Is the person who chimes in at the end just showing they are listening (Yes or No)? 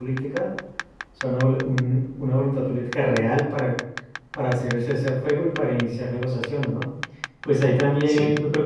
Yes